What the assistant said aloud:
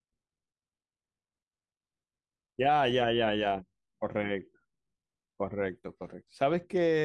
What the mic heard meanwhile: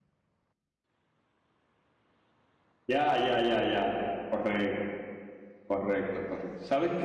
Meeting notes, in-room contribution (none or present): none